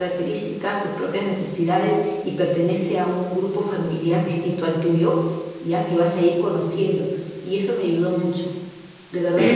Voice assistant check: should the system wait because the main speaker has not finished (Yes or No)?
No